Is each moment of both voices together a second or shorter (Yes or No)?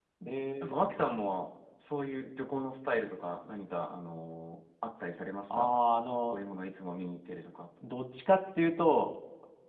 Yes